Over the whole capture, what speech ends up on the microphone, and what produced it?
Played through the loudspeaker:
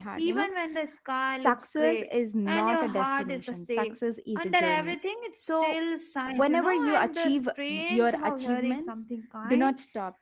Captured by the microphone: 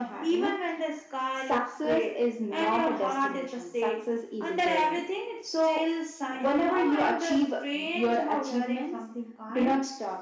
echo only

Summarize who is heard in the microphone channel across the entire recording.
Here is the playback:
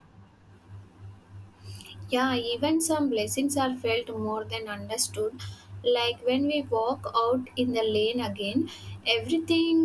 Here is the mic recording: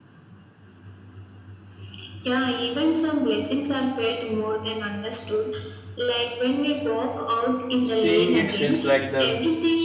both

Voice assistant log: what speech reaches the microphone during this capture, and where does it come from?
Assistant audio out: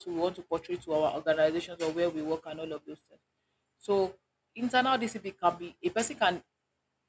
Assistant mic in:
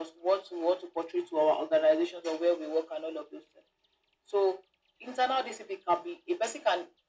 echo only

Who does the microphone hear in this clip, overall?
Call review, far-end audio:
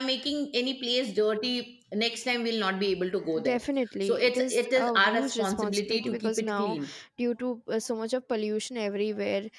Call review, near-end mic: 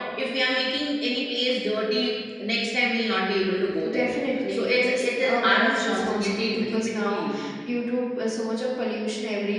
echo only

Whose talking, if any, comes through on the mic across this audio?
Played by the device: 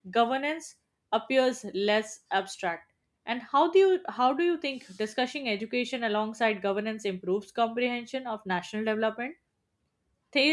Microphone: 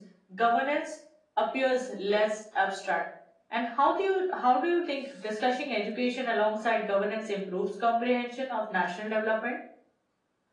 echo only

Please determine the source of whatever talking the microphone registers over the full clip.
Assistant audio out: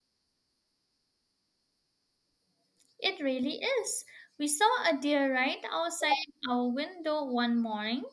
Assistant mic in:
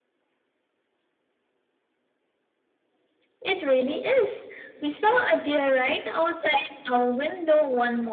echo only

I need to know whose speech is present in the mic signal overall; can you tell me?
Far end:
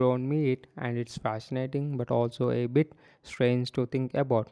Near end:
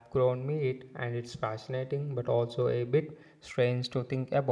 echo only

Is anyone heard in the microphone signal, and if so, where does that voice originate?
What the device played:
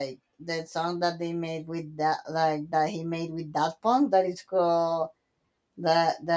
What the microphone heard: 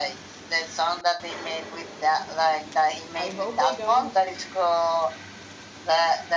both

